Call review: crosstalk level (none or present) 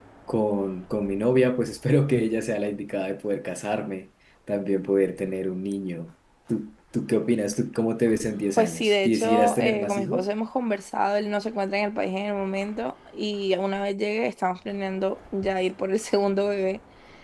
present